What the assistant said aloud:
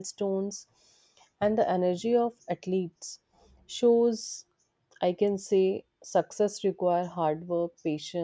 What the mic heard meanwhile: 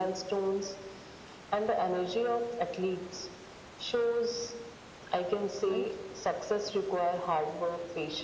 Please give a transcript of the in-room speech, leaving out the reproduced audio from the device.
Right?

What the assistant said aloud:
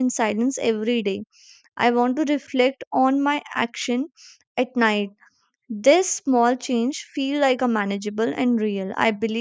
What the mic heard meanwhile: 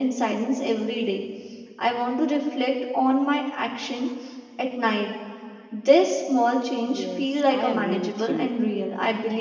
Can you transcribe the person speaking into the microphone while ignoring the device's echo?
Yes, I agree with you.

